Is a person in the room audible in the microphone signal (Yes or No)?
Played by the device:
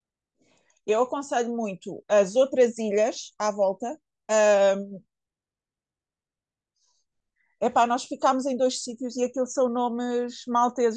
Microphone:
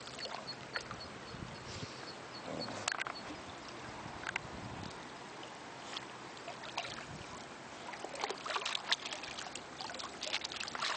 No